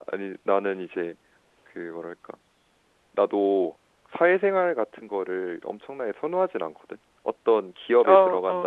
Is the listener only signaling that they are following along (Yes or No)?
Yes